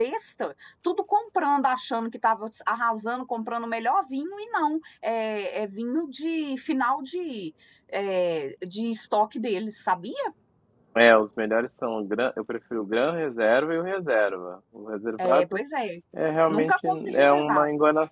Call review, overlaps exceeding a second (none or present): present